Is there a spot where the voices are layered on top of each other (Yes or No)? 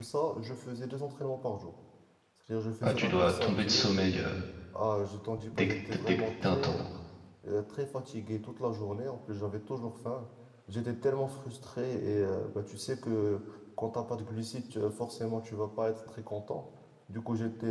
Yes